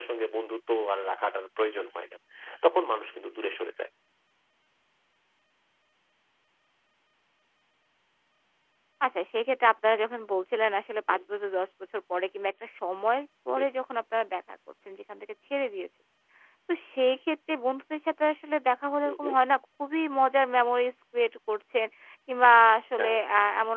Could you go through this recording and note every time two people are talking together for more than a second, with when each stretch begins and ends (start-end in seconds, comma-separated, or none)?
none